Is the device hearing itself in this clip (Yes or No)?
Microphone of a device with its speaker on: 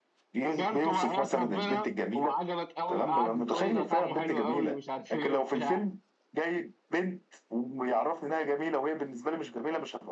Yes